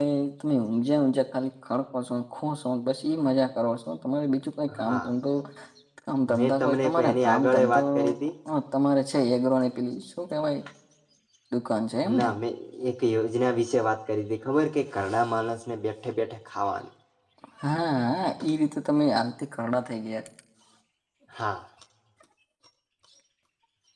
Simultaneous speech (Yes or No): Yes